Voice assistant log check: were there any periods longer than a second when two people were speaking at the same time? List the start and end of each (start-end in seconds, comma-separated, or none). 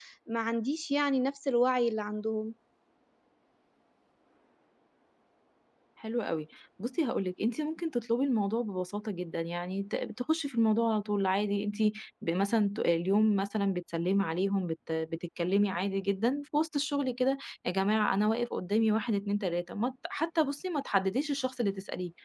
none